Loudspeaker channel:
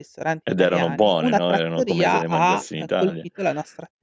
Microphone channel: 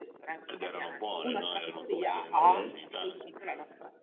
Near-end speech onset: 2.4 s

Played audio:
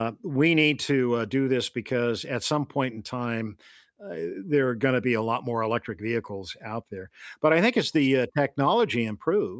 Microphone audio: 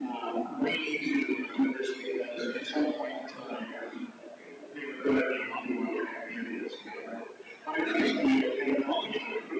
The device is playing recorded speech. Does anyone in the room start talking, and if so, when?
none

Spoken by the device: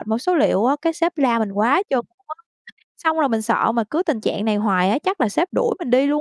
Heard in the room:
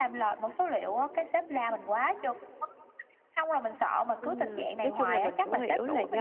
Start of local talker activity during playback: 4.2 s

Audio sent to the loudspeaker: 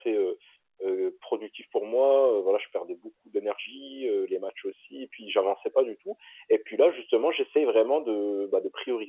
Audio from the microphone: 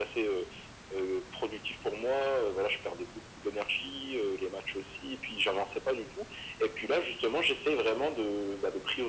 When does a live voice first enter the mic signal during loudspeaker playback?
none

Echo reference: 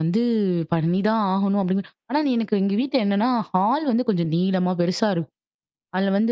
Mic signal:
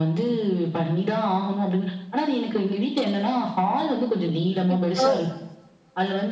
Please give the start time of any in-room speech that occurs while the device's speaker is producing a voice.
4.8 s

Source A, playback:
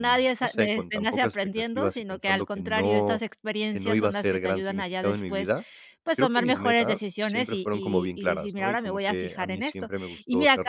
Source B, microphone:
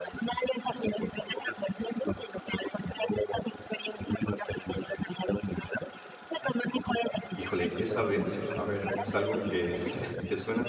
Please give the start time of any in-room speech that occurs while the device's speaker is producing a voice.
7.4 s

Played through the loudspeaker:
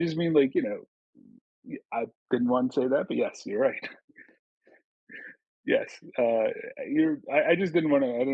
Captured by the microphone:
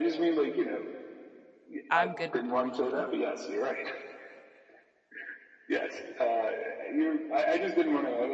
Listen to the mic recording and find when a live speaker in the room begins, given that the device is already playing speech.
1.9 s

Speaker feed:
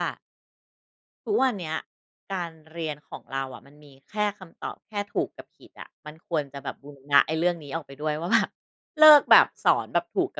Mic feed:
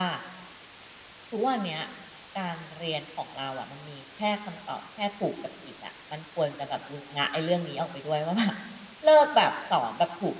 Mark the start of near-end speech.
none

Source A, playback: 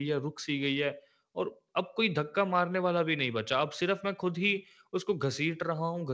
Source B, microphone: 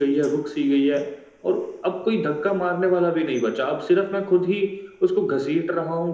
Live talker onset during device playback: none

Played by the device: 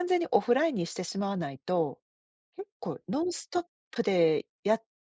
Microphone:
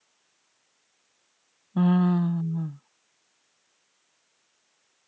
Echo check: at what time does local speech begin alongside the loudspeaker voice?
1.8 s

